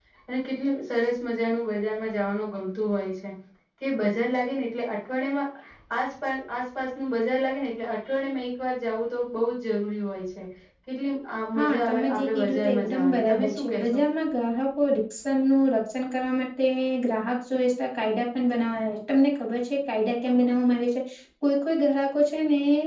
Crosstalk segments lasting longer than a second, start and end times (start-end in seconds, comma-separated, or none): 11.6-14.0